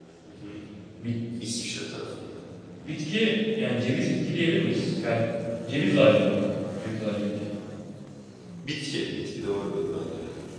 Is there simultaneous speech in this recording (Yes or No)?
No